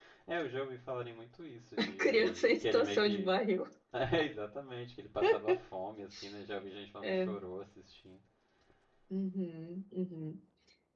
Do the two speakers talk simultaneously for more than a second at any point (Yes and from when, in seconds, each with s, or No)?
Yes, from 2.0 s